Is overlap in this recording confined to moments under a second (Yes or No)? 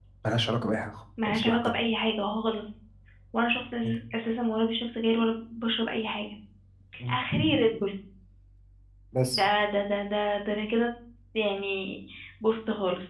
Yes